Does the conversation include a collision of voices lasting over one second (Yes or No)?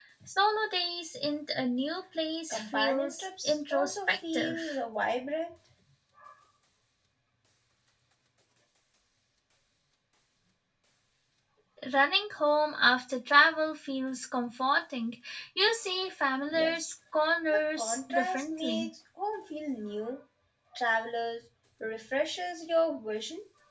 Yes